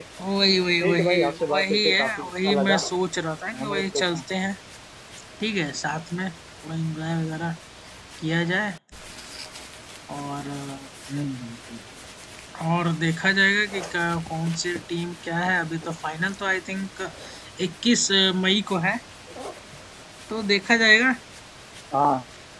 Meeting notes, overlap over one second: present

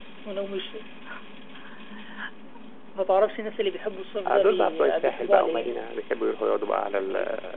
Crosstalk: present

